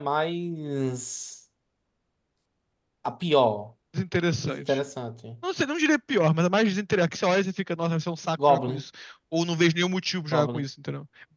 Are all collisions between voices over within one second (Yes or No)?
Yes